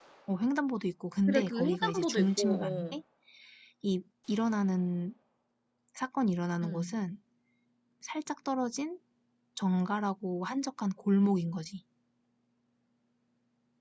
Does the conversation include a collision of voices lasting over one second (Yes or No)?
Yes